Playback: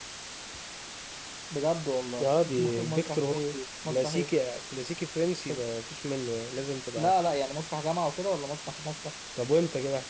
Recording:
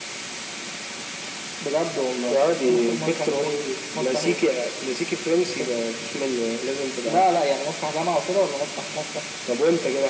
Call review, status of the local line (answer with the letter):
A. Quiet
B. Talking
A